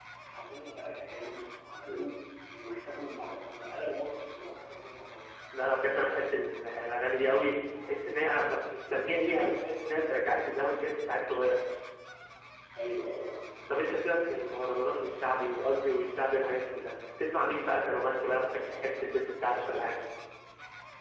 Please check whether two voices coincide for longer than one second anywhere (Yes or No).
No